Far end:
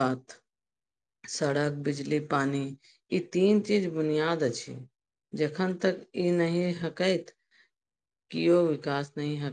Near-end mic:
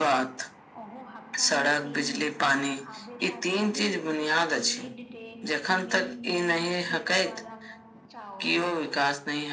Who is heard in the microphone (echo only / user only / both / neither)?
both